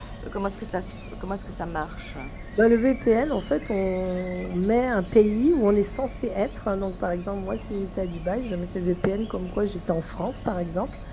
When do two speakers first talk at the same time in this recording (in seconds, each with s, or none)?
none